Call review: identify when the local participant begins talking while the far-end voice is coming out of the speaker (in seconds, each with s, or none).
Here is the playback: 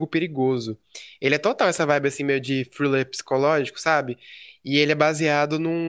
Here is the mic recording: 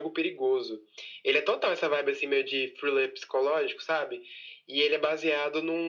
none